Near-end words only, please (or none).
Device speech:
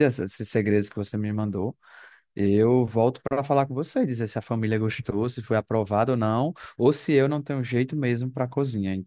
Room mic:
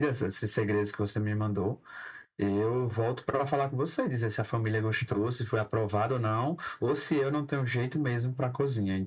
none